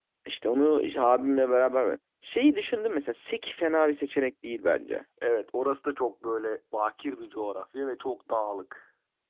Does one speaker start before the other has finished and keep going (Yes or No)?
No